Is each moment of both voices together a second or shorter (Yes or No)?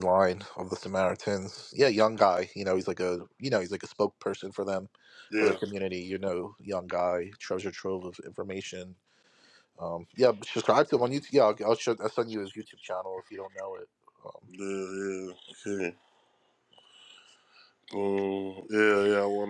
Yes